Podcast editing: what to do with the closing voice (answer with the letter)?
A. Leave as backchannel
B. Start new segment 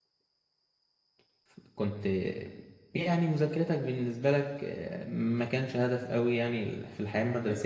A